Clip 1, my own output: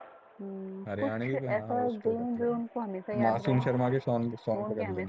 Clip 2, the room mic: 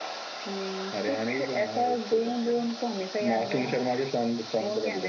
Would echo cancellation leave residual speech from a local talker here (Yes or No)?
No